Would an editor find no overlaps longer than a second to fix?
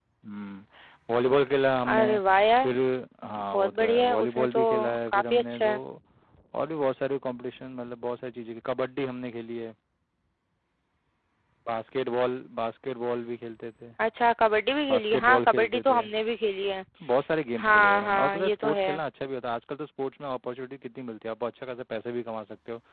No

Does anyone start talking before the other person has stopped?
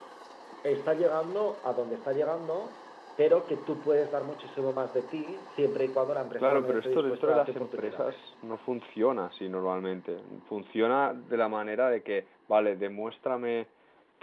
Yes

